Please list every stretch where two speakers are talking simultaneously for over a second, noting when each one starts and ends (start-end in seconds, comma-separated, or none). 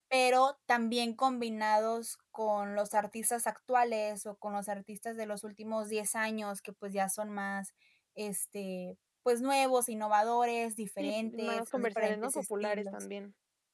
11.0-13.1